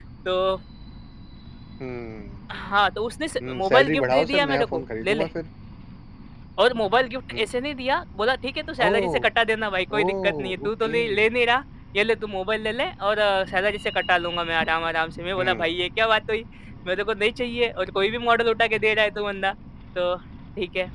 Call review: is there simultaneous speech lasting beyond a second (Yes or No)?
Yes